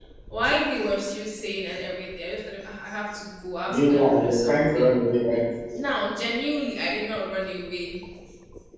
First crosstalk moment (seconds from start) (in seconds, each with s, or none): 3.7 s